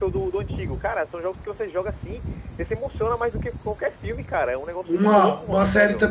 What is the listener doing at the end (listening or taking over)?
taking over